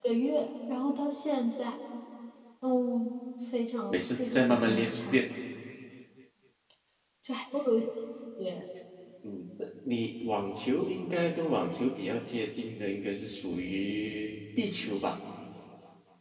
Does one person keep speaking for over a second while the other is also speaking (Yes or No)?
Yes